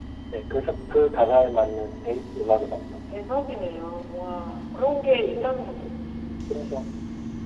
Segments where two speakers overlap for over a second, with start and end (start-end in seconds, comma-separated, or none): none